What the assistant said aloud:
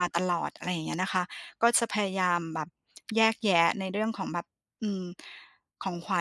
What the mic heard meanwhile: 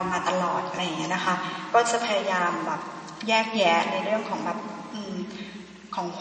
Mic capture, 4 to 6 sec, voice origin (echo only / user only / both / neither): echo only